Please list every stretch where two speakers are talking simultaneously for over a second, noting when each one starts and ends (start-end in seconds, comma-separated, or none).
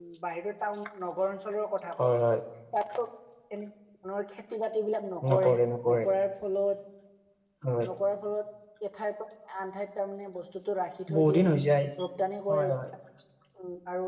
none